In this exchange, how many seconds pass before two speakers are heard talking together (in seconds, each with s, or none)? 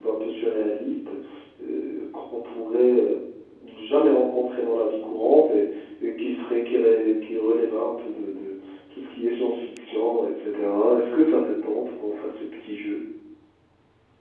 none